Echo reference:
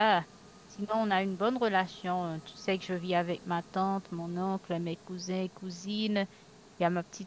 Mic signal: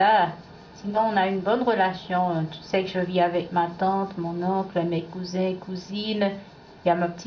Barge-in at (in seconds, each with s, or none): none